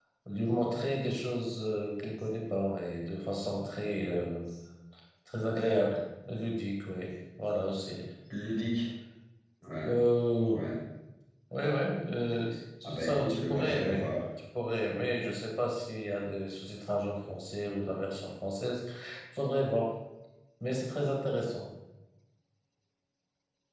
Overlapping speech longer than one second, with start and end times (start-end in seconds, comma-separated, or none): 12.8-14.1